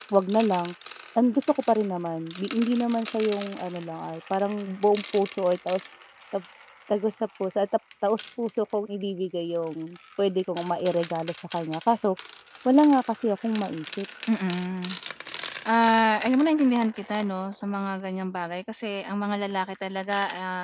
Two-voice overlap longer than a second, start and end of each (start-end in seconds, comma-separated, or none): none